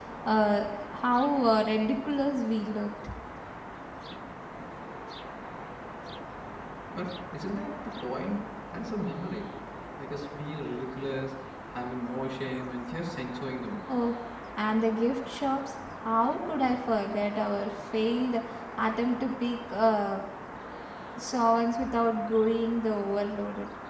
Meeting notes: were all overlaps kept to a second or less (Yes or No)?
Yes